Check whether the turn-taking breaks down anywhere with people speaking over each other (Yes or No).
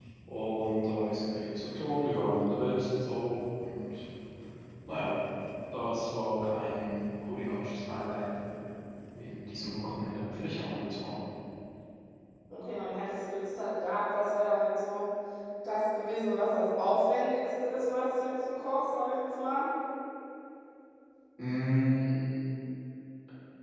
No